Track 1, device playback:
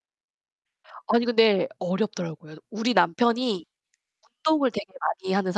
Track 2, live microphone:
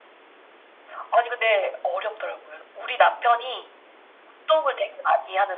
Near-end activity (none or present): none